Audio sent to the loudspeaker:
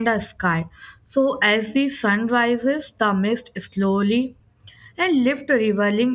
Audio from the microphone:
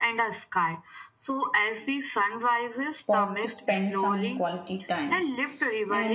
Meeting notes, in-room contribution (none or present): present